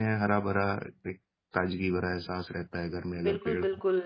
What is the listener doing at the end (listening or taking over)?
taking over